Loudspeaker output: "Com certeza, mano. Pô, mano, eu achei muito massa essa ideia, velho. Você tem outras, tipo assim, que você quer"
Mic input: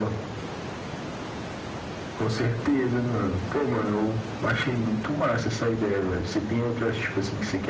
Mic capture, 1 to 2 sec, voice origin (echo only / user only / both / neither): neither